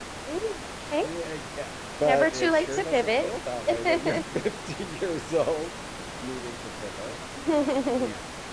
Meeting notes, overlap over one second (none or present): present